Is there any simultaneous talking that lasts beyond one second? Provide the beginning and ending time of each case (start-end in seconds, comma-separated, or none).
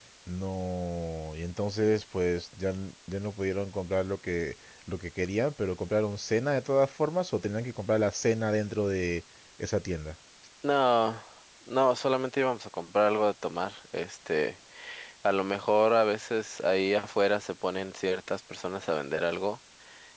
none